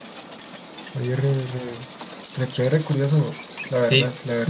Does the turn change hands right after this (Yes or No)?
Yes